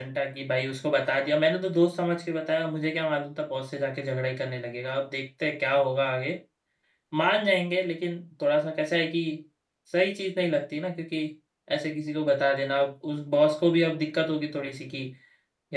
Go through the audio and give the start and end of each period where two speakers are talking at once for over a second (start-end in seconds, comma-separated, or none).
none